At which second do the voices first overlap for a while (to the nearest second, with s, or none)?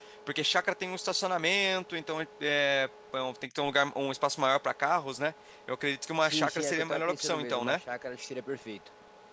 6 s